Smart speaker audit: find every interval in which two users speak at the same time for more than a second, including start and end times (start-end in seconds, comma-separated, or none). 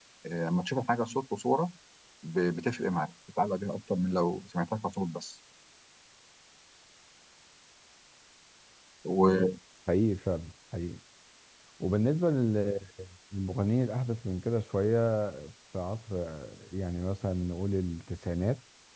none